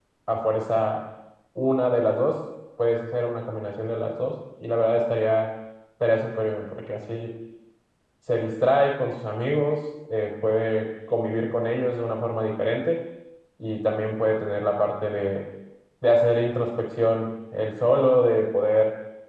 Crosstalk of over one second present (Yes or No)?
No